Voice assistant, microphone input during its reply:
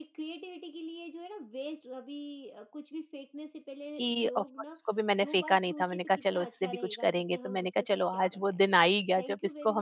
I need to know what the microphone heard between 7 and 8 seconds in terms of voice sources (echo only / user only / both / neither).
both